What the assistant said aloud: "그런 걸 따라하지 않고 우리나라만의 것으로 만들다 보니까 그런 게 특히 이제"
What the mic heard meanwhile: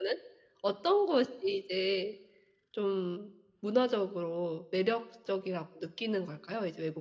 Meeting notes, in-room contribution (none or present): present